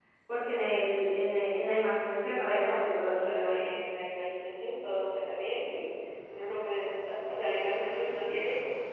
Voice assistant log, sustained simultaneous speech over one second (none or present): present